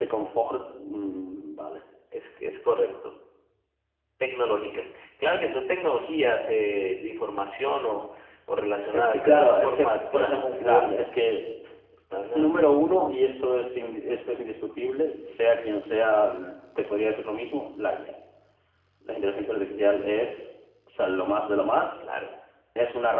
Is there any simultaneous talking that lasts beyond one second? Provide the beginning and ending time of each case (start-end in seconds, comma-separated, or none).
8.9-10.8